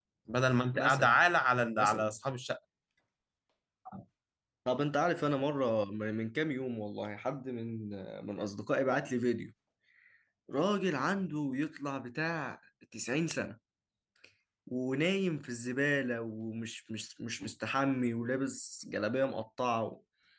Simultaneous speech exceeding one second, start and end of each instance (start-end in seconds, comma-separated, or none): none